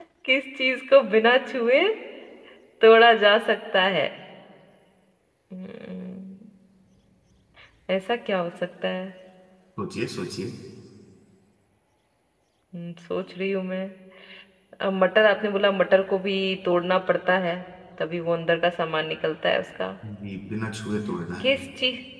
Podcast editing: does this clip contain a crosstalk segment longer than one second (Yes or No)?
No